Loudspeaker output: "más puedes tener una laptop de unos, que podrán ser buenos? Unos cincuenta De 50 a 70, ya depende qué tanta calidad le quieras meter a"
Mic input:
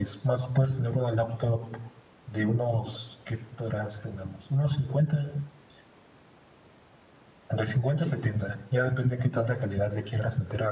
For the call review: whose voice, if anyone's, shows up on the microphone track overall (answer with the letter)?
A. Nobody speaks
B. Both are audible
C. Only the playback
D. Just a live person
C